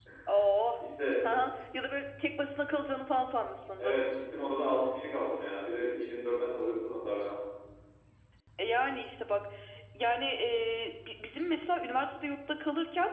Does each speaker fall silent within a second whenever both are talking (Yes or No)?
Yes